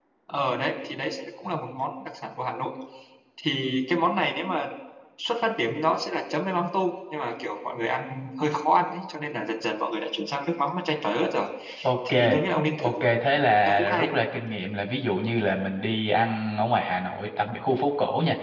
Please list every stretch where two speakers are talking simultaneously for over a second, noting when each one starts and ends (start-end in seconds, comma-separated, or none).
none